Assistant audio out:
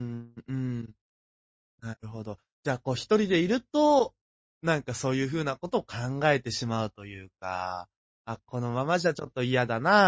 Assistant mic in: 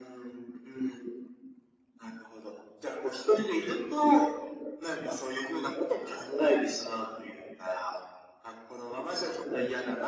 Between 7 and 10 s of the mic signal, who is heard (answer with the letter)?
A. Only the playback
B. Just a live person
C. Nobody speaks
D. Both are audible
A